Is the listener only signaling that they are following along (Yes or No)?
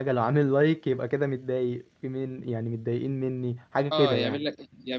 No